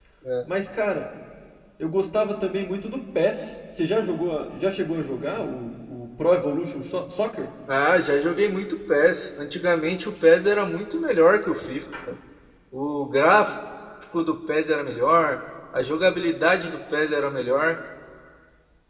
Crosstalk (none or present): none